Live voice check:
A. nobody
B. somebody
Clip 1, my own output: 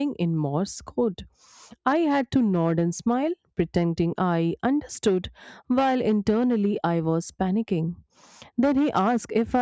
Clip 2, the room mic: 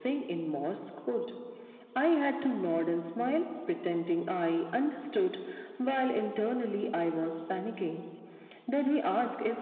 A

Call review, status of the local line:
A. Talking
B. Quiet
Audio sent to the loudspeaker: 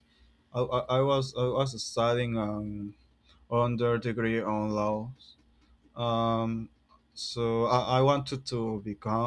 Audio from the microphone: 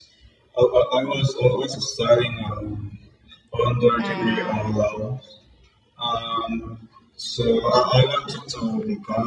A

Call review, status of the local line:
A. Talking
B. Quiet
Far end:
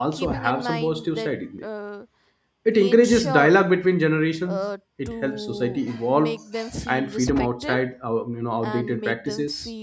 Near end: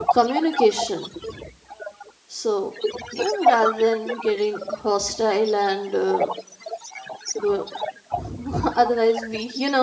A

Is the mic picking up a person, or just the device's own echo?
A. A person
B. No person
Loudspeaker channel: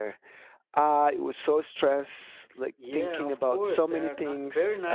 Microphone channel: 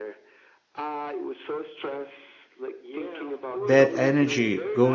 A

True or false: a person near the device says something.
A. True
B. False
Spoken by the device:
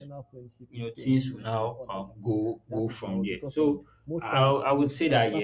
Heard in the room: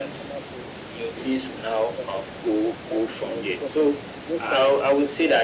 B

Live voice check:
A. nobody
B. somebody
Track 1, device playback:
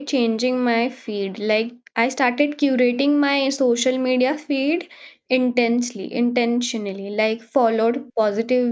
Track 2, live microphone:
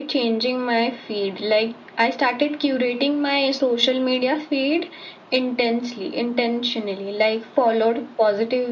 A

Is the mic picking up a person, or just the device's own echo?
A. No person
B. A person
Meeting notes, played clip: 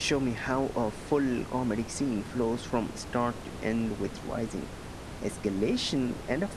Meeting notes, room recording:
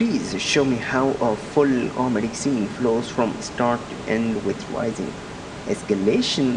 A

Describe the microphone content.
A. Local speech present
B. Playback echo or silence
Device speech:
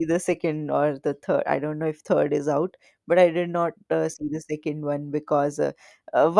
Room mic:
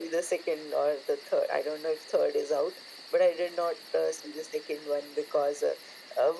B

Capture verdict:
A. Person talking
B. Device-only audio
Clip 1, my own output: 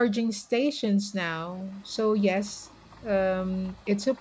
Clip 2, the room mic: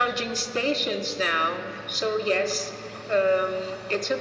B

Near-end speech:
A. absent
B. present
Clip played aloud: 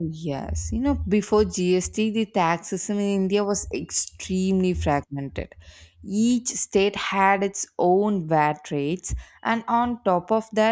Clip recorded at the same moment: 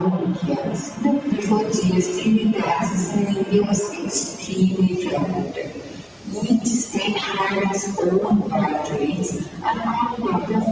A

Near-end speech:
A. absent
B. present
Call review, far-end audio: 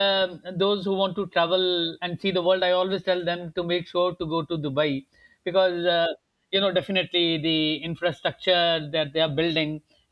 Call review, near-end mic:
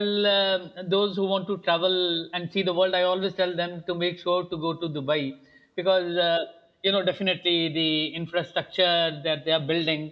A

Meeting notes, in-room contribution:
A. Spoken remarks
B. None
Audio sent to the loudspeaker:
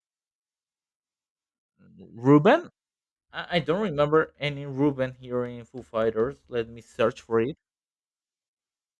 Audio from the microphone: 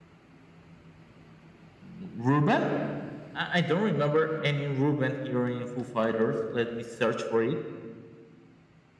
B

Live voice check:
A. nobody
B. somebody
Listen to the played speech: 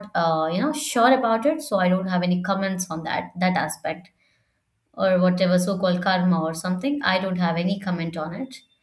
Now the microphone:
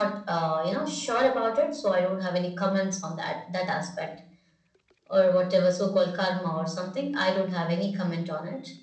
A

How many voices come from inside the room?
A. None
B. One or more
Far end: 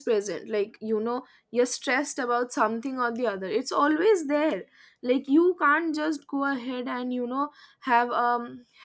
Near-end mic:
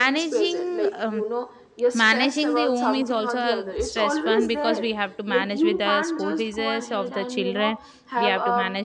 B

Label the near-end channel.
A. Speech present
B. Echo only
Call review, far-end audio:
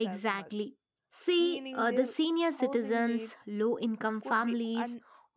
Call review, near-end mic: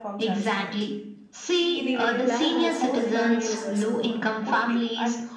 A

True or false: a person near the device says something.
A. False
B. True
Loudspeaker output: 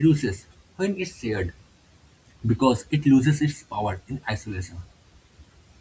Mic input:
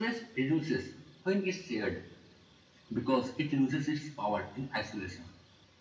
A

